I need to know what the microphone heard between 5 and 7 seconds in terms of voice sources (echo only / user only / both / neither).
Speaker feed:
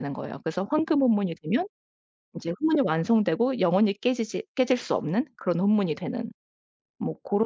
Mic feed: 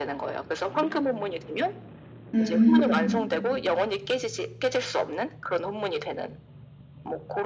echo only